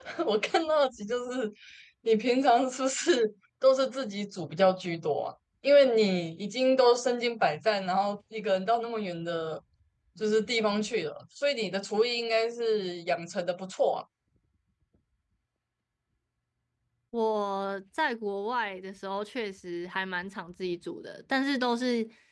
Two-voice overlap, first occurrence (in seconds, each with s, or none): none